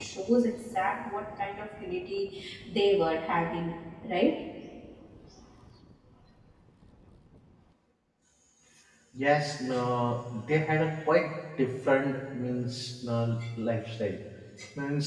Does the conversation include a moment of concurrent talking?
No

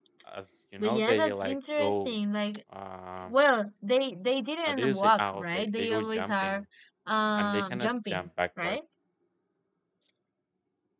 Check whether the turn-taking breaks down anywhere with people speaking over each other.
Yes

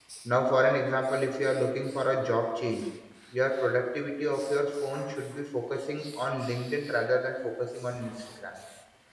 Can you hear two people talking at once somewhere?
No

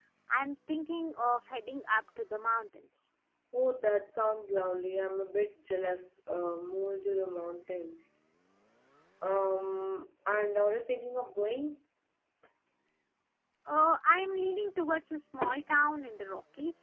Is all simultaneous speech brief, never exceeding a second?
Yes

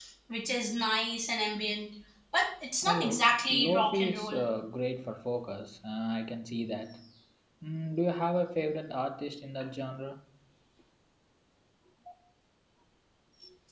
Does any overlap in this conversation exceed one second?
Yes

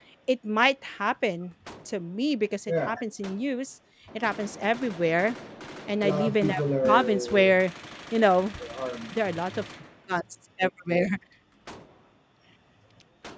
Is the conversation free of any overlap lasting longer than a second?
No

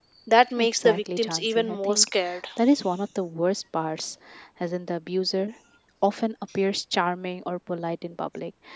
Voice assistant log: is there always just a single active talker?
No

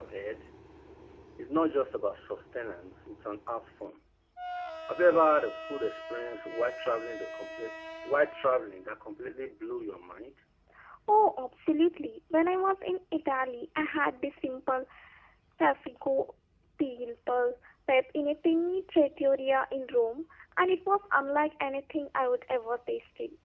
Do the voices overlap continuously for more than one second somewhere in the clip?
No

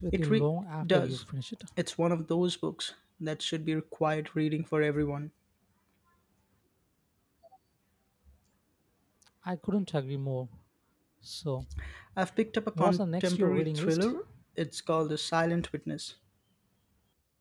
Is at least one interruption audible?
Yes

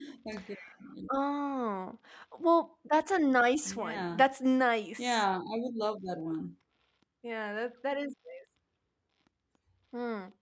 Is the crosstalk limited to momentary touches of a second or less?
Yes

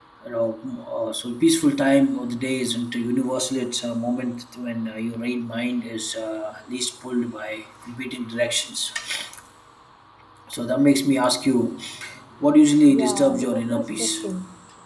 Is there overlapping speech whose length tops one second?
Yes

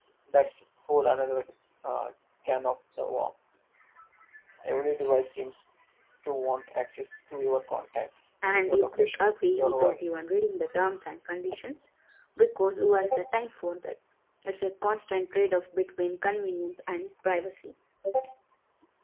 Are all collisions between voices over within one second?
No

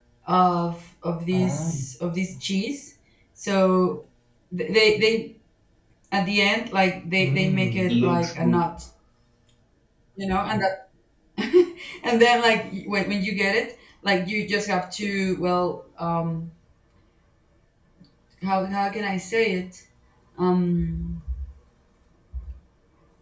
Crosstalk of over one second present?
Yes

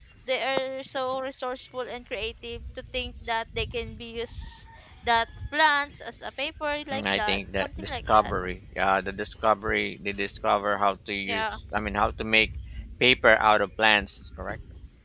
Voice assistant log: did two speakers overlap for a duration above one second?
Yes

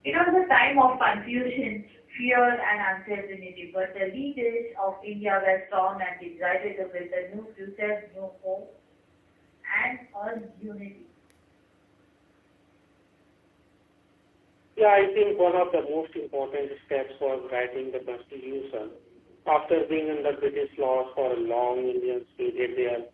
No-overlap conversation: Yes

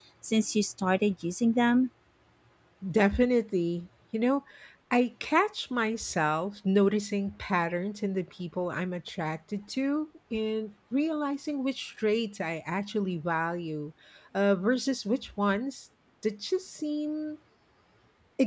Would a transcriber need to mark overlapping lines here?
No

